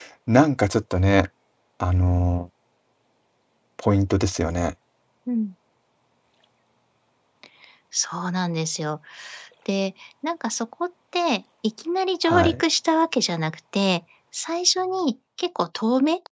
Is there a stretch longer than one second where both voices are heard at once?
No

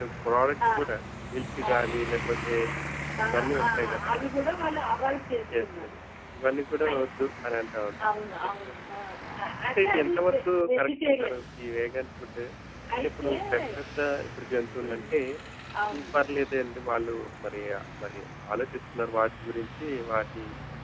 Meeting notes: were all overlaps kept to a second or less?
No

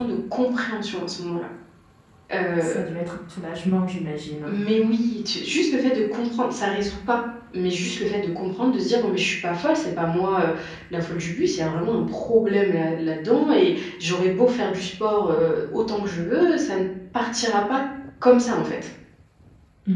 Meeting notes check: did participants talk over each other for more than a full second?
No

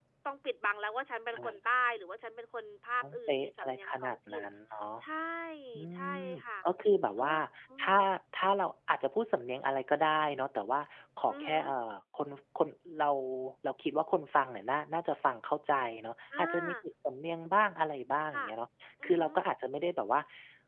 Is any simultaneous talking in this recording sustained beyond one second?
Yes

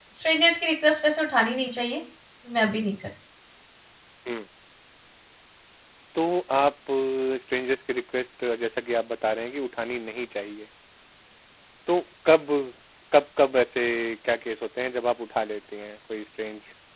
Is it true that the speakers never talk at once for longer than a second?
Yes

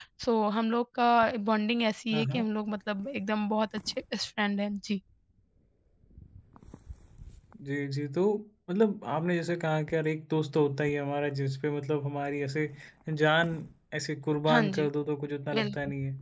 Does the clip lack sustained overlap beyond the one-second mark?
Yes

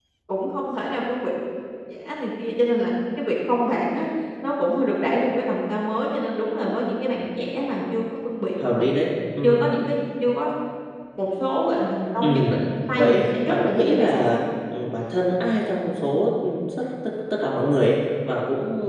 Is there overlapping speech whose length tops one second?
Yes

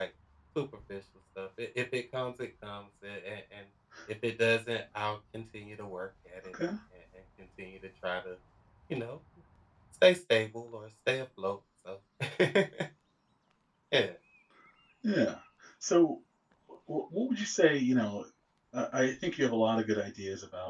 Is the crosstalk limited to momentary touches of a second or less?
Yes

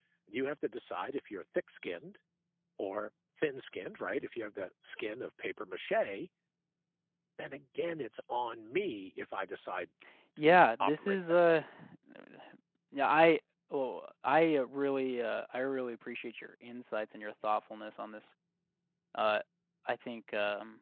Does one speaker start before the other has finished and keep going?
Yes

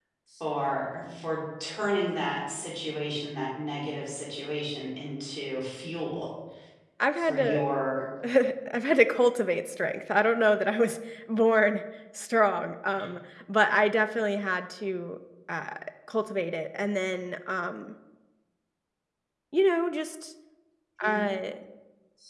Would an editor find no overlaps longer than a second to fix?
Yes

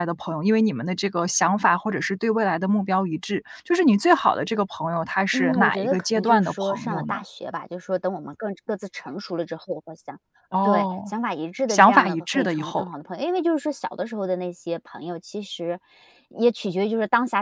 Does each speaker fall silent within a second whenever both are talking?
No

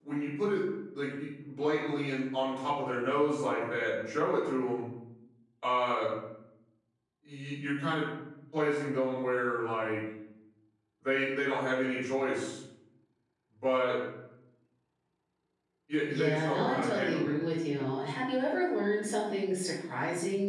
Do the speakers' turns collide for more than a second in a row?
Yes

